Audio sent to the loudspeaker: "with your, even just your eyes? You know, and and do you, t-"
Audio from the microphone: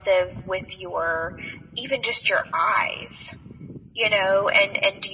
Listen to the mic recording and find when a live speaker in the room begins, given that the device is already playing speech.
none

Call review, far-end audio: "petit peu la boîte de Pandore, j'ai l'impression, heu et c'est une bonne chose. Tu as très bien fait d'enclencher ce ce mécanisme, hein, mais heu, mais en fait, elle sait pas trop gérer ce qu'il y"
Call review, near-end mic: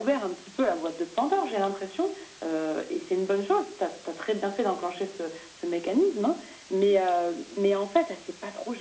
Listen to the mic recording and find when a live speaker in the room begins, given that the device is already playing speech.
none

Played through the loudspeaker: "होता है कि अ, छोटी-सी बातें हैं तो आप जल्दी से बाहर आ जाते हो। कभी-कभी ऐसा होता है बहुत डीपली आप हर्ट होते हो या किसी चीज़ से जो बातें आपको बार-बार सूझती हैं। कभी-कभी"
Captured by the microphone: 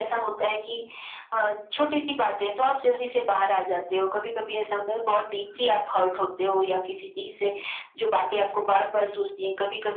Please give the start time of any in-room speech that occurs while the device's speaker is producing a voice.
none

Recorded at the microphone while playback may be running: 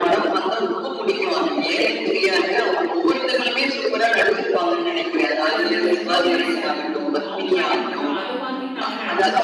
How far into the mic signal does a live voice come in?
5.5 s

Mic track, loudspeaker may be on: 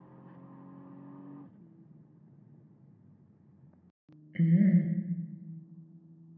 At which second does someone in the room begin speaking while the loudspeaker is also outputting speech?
4.4 s

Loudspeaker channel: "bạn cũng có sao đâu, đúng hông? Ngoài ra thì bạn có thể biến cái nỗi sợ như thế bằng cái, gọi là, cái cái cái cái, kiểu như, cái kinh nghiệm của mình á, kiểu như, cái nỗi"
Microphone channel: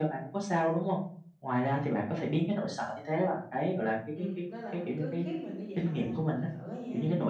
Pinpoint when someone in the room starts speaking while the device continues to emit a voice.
4.1 s

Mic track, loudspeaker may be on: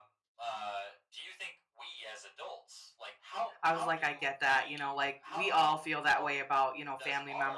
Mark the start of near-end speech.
3.6 s

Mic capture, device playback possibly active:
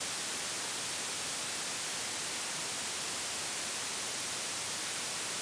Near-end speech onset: none

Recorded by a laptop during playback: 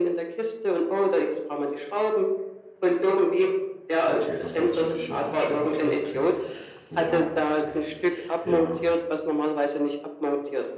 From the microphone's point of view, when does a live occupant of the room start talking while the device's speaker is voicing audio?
4.0 s

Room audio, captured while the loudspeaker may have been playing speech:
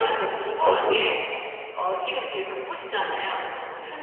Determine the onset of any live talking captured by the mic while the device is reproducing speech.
0.6 s

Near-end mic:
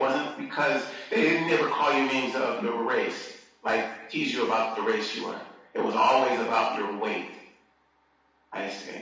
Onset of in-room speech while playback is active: none

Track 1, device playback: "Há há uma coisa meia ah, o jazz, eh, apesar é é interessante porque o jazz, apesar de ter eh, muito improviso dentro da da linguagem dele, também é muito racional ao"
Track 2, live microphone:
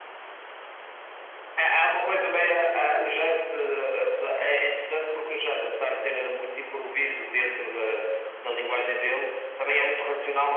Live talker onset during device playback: none

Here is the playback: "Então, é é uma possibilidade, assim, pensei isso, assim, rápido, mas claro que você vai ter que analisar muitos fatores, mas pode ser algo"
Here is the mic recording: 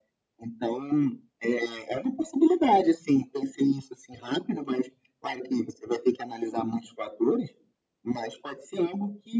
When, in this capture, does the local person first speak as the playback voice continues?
none

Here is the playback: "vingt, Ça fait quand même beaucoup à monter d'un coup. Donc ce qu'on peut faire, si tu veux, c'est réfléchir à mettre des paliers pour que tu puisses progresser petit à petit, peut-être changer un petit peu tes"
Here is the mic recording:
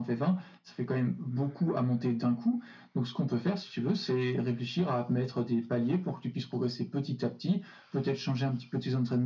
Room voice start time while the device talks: none

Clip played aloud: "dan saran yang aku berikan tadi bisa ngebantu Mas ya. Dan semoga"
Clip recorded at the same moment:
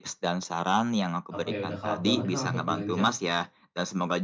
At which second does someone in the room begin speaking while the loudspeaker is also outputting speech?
1.3 s

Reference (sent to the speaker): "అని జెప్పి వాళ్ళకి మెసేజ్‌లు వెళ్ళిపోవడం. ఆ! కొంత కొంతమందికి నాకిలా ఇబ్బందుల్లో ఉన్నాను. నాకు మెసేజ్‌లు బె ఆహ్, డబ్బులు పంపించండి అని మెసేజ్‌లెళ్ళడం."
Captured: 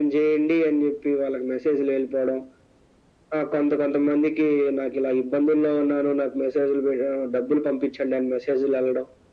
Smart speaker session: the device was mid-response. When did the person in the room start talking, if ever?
none

